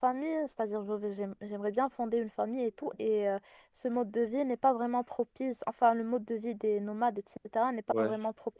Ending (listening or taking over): listening